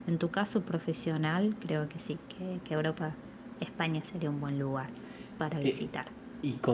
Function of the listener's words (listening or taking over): taking over